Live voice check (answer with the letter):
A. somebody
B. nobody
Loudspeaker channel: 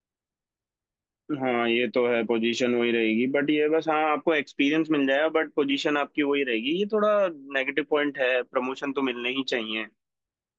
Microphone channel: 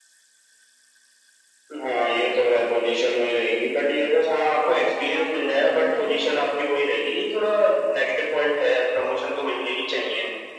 A